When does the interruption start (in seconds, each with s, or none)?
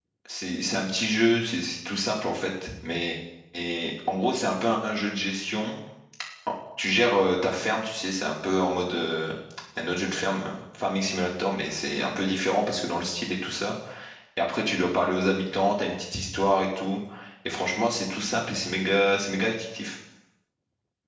none